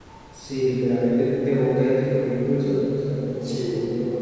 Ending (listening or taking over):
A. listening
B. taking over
A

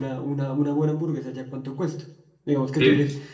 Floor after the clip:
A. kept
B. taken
A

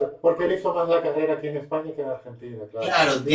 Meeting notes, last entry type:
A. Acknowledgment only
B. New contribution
B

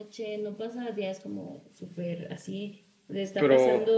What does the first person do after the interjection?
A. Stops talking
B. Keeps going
B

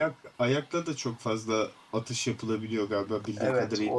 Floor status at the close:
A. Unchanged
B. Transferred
B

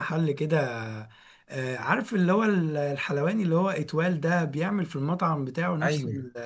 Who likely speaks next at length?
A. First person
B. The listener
A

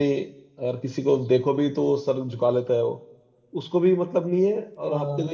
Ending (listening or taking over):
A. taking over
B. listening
B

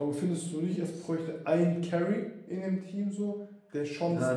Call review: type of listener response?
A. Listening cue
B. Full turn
B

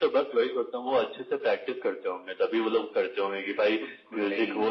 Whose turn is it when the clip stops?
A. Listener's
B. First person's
B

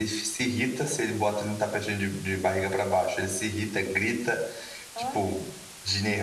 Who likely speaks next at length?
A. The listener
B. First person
B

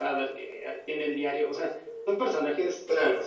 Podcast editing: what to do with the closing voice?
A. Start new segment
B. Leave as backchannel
B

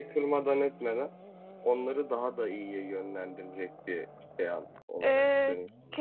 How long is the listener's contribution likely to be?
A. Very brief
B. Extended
B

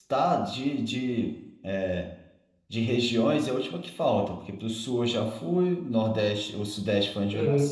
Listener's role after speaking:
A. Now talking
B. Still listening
B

